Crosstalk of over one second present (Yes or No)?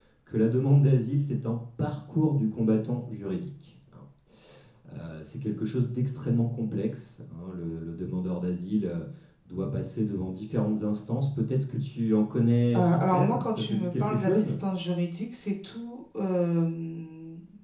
Yes